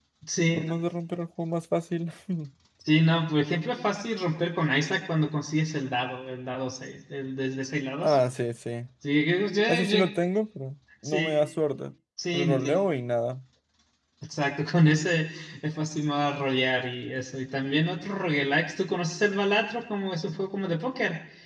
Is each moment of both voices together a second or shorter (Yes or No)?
Yes